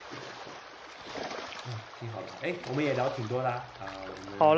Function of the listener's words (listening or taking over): taking over